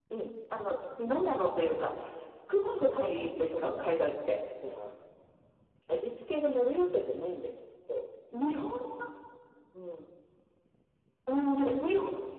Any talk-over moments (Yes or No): Yes